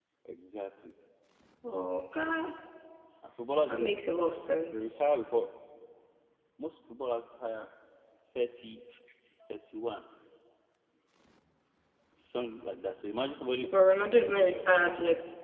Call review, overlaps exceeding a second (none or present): none